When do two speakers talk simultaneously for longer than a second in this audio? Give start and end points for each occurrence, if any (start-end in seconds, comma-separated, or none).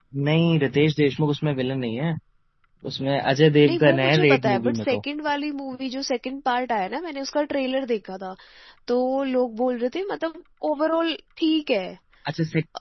3.6-5.0